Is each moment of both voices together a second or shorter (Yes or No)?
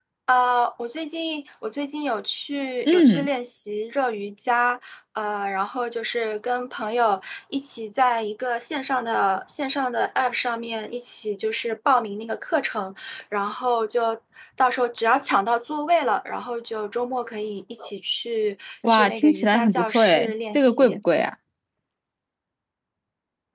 No